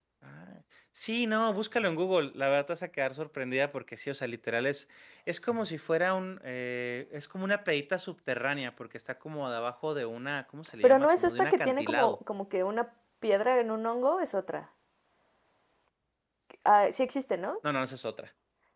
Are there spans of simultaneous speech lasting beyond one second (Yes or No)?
Yes